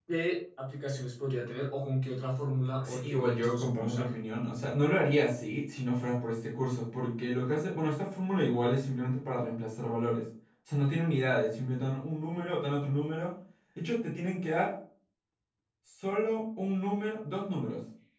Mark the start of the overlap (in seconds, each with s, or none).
2.8 s